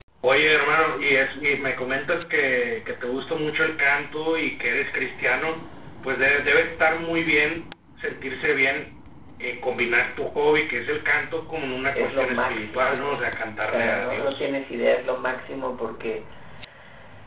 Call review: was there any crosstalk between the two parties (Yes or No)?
Yes